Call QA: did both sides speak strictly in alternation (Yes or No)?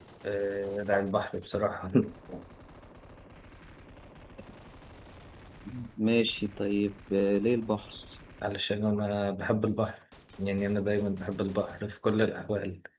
Yes